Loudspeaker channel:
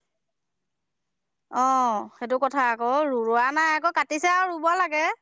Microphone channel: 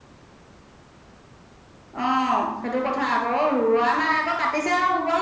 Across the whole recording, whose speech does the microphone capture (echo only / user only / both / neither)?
echo only